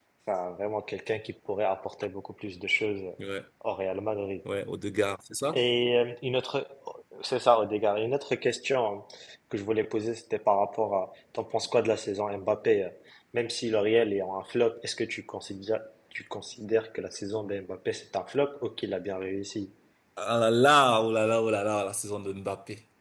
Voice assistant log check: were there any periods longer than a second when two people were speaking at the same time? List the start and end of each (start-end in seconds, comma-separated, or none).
none